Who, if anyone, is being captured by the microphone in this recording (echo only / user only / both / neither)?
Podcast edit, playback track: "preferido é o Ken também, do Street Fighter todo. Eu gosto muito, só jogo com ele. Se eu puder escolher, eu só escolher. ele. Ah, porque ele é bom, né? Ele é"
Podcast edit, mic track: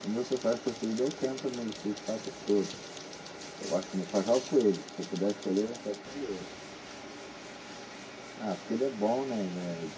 echo only